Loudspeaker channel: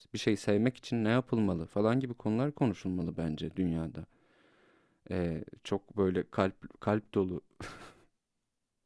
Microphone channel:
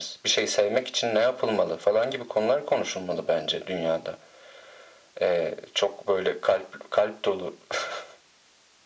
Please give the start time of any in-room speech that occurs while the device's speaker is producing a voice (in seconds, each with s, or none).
none